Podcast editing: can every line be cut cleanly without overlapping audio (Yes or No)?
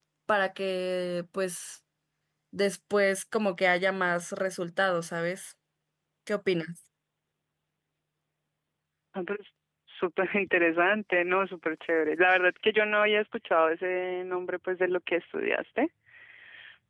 Yes